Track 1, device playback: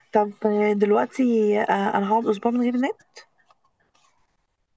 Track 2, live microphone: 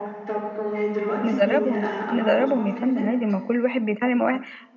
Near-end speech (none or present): present